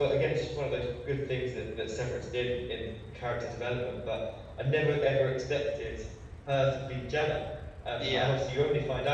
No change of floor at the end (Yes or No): Yes